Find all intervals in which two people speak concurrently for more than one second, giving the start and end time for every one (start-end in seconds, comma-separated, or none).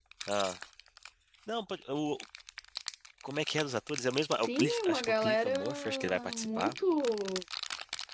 4.4-6.8